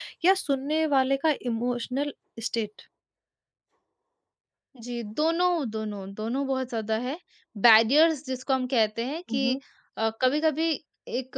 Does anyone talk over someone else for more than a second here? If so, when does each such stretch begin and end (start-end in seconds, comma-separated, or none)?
none